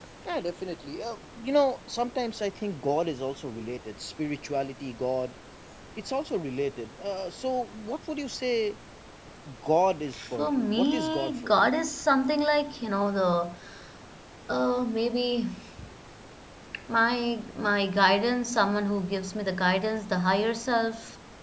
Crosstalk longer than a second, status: present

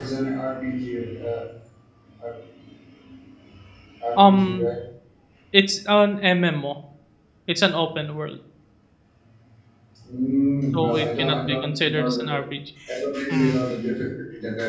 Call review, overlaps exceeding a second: present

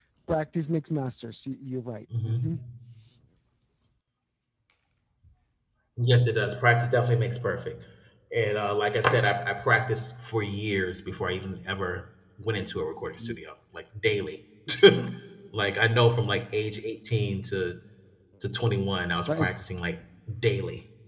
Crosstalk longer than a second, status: none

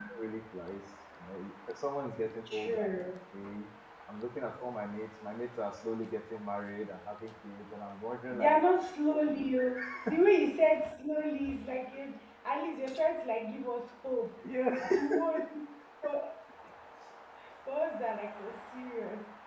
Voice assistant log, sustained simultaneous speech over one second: none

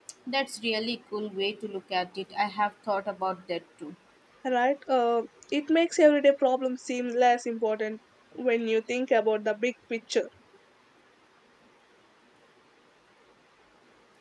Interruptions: none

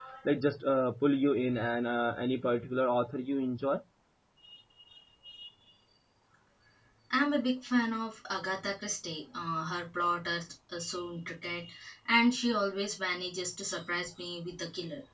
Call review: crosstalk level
none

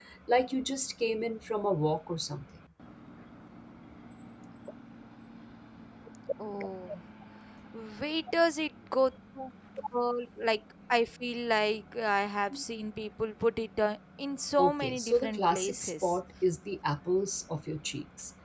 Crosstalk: present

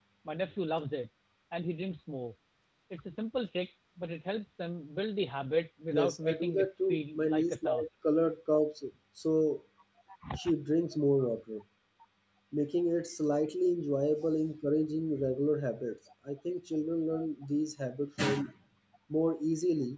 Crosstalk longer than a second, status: present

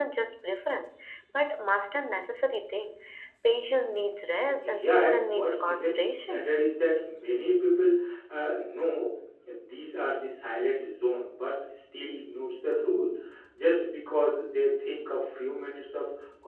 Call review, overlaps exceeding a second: present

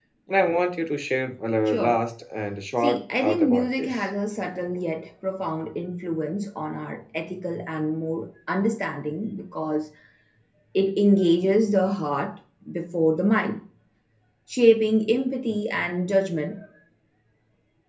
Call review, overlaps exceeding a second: present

